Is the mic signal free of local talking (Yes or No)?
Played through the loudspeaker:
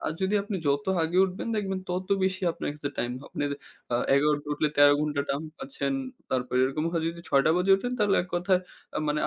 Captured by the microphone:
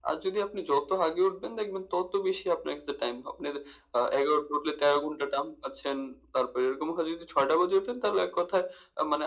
Yes